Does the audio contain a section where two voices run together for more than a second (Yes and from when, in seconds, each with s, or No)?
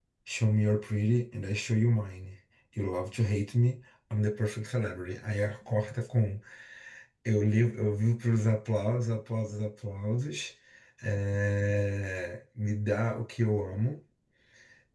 No